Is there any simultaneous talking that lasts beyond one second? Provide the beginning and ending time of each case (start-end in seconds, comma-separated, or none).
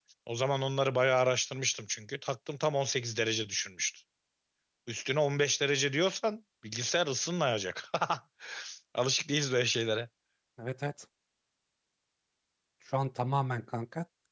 none